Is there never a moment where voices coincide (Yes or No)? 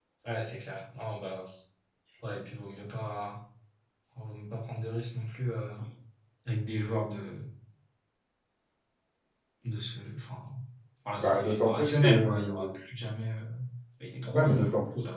No